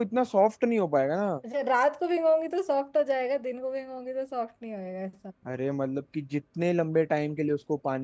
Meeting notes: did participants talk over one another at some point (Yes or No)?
No